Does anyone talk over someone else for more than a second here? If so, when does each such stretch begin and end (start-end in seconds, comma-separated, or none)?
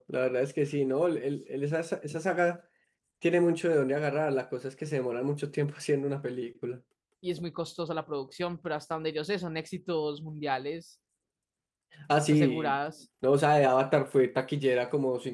none